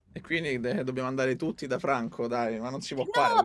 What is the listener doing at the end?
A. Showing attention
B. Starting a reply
B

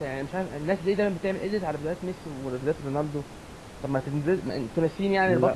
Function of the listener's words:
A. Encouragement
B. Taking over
B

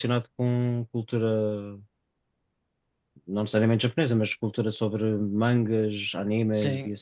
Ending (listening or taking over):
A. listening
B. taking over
B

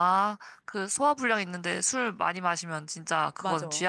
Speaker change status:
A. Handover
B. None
A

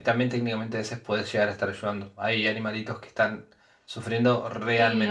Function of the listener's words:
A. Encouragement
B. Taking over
B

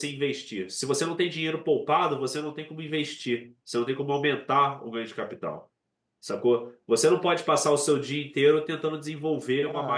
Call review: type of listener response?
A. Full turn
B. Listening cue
A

